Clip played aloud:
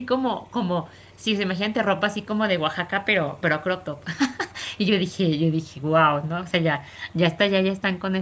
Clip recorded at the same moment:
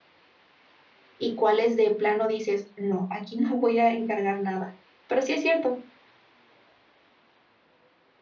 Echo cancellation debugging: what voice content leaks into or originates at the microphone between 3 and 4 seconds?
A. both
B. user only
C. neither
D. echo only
B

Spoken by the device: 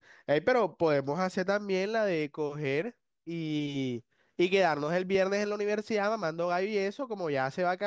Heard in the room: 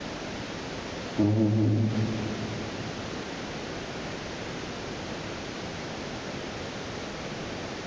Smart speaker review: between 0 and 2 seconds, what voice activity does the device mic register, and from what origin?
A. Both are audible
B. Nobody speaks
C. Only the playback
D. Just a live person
D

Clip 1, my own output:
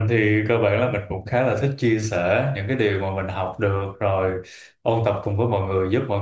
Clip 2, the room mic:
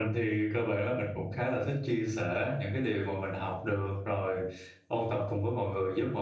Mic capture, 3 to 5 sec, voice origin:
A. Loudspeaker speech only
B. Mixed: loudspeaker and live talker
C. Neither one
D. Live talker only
A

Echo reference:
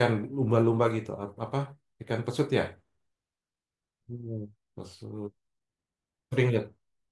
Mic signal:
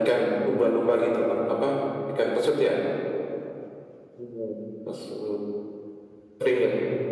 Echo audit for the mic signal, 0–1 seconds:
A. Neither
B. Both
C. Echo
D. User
C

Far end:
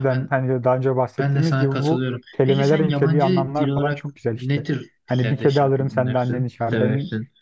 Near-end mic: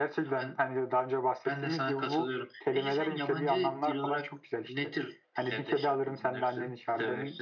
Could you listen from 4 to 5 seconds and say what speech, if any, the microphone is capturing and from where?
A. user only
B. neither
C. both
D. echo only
D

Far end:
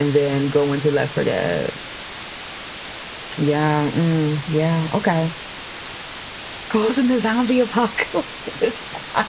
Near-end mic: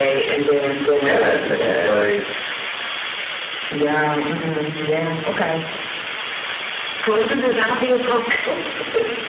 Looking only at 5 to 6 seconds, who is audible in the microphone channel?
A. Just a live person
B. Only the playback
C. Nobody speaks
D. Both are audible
B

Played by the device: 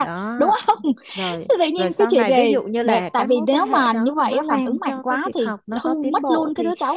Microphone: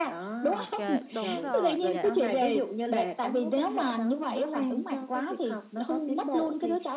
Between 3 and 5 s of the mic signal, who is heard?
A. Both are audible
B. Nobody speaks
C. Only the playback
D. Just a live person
C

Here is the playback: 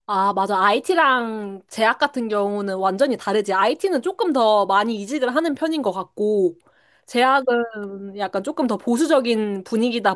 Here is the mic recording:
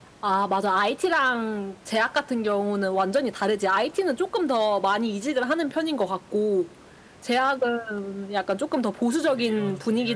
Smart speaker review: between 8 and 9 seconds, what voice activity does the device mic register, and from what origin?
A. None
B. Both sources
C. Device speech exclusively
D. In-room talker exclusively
C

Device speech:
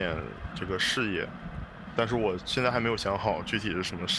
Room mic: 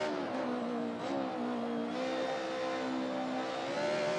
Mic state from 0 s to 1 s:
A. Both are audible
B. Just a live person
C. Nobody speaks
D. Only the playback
C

